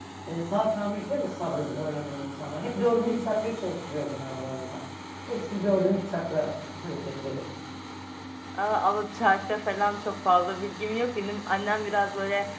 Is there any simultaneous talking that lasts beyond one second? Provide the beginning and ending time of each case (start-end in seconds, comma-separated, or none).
none